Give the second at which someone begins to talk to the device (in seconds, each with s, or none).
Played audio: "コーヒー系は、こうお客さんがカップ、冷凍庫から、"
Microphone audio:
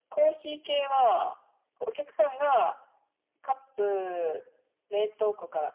none